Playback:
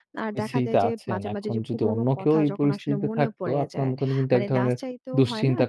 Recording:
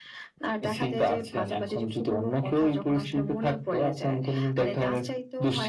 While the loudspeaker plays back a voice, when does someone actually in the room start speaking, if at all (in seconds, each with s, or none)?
none